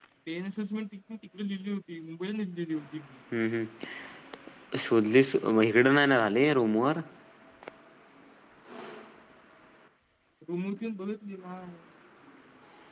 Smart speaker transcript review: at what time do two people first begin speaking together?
none

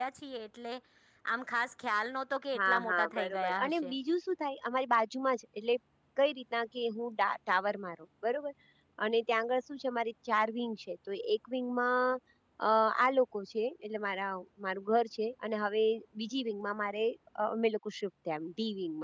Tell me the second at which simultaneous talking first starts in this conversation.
2.5 s

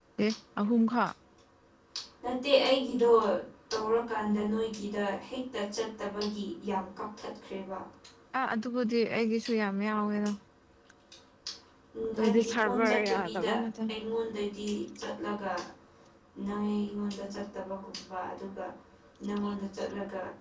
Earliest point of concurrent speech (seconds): 12.2 s

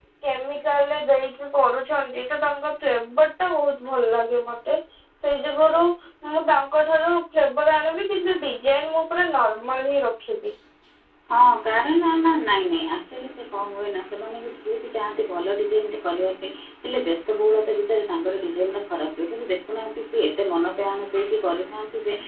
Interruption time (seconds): none

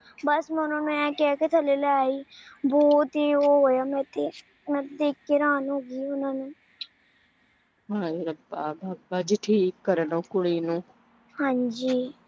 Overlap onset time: none

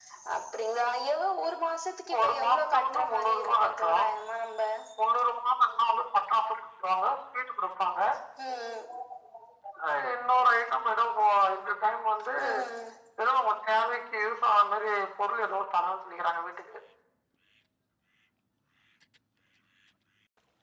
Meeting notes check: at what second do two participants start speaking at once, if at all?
2.2 s

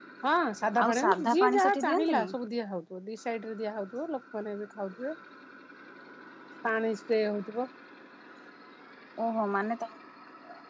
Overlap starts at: 0.8 s

